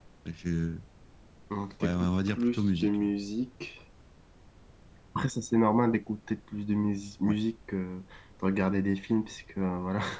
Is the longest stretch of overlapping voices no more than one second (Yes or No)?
No